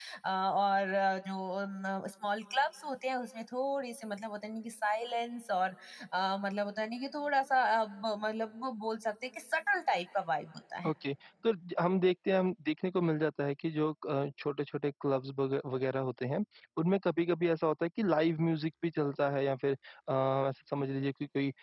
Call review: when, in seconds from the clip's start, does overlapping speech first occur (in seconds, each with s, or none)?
none